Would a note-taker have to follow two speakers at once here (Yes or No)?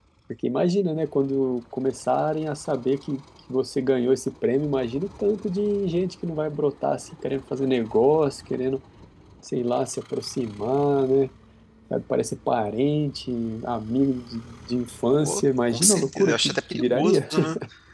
Yes